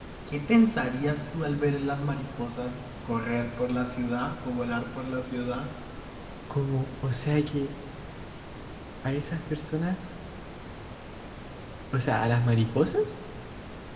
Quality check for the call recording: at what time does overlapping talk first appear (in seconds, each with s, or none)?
none